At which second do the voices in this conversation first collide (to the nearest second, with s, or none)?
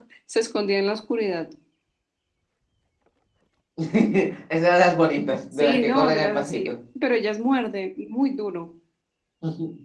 6 s